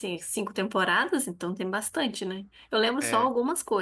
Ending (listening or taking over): listening